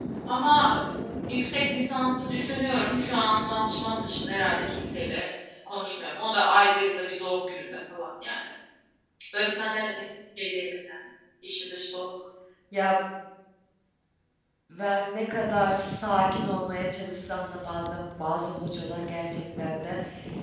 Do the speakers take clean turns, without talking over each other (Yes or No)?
Yes